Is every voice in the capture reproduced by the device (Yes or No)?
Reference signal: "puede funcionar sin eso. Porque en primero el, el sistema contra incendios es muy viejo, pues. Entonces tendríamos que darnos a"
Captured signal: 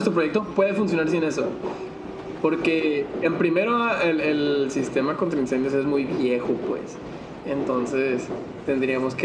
Yes